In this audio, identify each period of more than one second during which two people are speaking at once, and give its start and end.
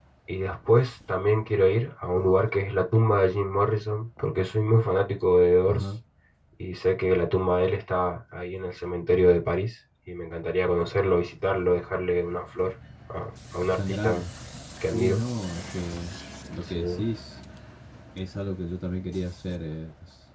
none

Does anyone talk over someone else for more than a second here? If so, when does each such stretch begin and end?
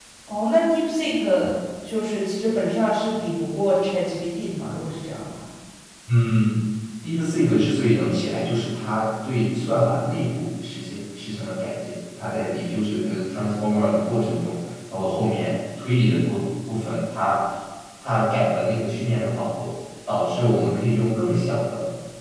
none

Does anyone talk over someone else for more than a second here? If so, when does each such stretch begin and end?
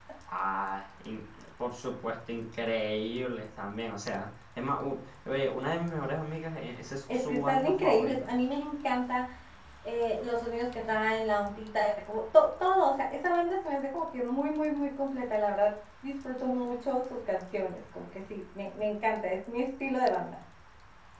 7.1-8.3

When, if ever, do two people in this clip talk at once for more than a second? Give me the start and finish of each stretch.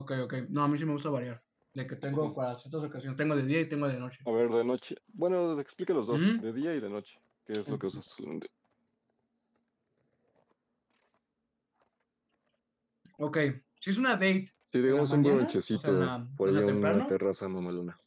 14.9-17.2

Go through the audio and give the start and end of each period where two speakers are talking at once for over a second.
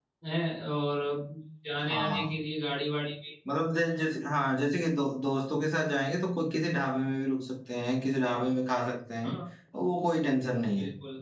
none

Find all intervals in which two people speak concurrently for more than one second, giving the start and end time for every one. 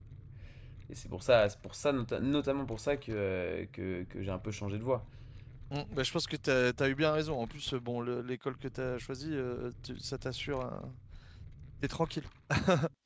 none

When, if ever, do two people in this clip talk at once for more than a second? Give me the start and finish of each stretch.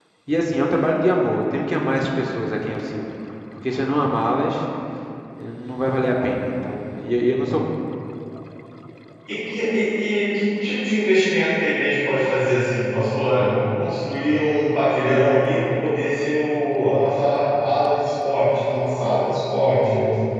none

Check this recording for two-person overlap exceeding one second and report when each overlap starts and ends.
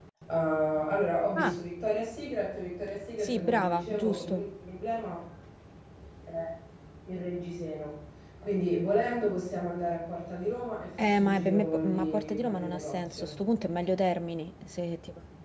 3.2-4.5, 11.0-13.3

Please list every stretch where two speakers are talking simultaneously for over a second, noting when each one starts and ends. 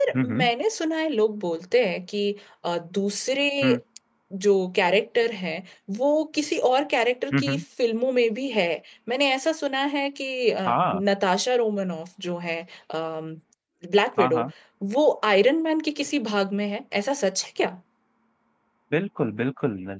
none

